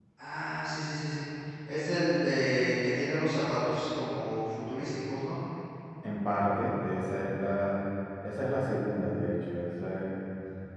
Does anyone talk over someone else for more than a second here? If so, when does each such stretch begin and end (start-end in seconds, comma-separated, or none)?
none